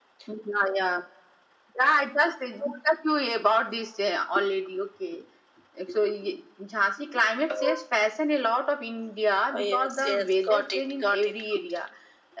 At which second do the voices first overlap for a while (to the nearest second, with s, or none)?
10 s